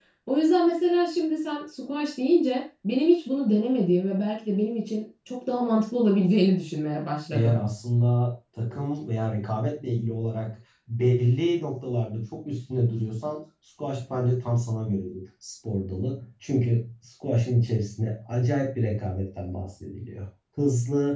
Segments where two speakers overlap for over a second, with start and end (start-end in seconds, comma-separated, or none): none